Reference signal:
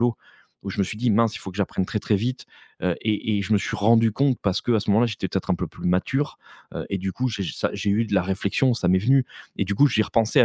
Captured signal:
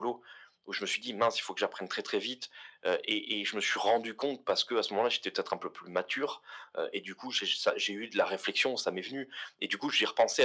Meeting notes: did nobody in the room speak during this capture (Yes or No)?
Yes